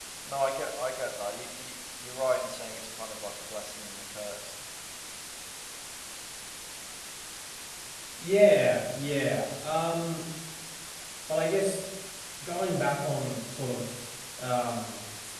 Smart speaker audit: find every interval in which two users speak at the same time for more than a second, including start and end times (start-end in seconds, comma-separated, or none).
none